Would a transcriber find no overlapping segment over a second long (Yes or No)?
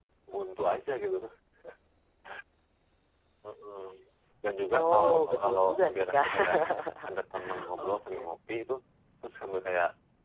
No